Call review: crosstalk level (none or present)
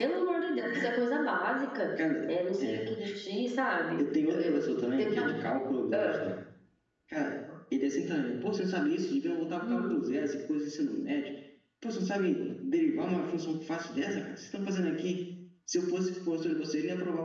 present